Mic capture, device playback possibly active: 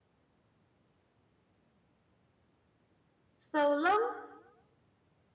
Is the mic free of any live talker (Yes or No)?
No